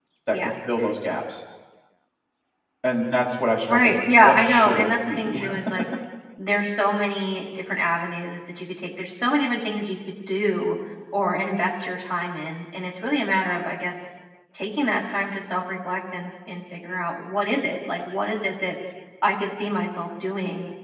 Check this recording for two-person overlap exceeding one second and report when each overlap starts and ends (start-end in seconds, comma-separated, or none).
3.7-5.4